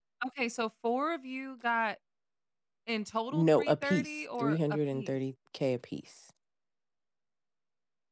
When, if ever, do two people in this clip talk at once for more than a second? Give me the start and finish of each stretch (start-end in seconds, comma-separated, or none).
3.3-5.2